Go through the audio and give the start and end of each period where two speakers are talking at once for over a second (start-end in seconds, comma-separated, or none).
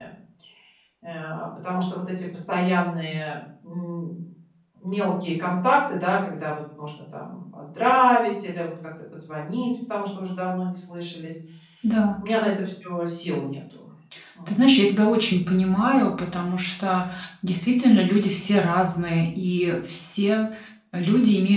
none